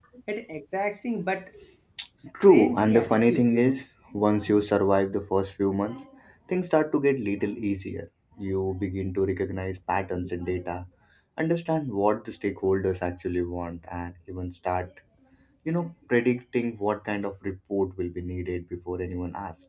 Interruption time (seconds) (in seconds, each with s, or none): 2.5 s